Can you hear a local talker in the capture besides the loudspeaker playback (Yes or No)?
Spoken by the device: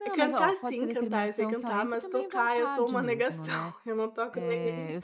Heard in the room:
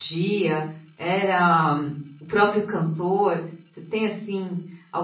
Yes